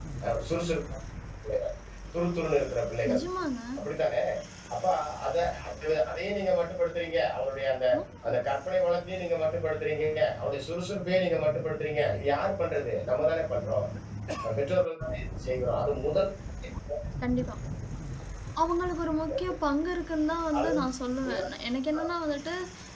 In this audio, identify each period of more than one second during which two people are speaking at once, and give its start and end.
none

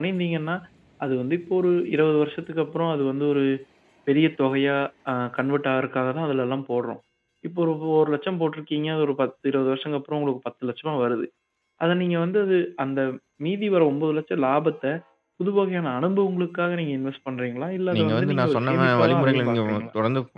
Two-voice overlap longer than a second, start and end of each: 17.9-19.9

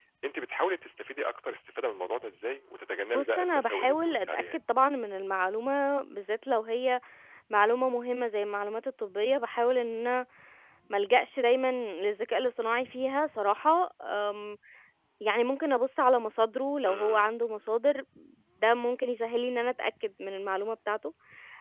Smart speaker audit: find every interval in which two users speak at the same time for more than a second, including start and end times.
3.1-4.6

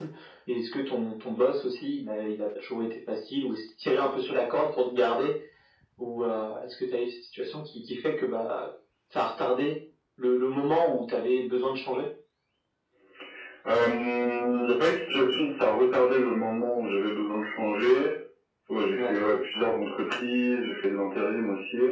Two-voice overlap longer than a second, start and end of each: none

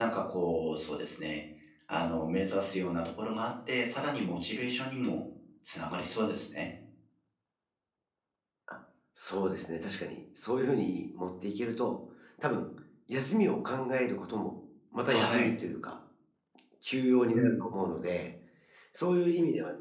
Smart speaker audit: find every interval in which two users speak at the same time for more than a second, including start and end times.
none

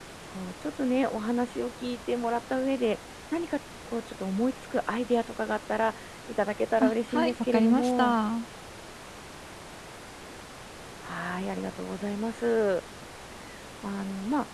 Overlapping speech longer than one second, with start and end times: 6.8-8.2

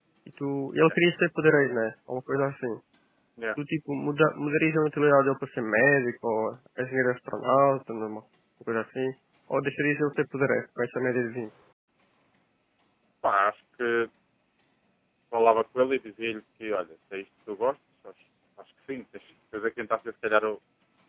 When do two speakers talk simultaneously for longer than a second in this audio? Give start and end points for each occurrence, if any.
none

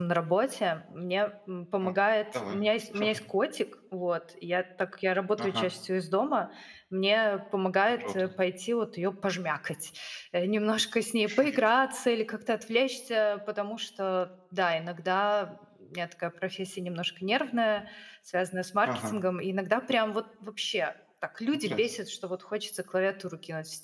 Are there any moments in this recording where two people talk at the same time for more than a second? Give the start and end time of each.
none

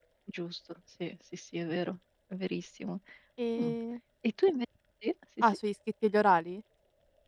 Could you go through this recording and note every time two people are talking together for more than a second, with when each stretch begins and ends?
none

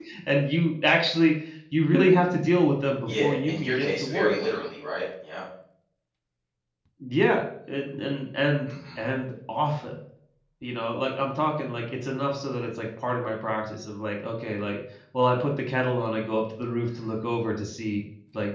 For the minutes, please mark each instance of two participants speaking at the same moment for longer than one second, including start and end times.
3.1-4.4

